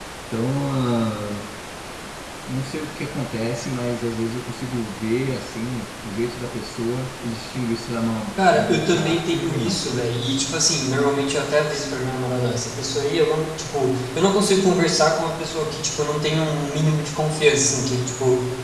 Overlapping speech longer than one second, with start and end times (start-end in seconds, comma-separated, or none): 8.4-9.8